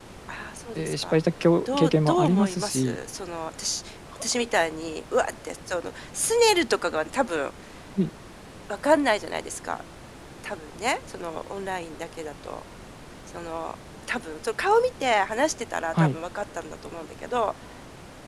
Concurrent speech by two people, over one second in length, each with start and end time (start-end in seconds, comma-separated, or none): 1.6-3.0